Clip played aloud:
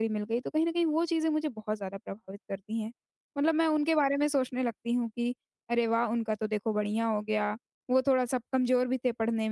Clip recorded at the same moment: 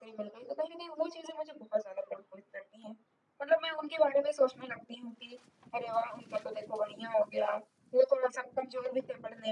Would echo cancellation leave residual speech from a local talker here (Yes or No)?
No